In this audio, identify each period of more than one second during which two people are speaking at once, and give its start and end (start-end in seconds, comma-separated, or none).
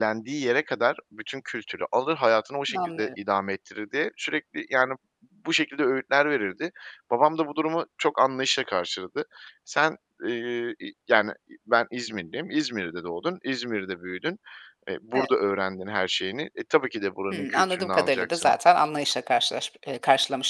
17.3-18.5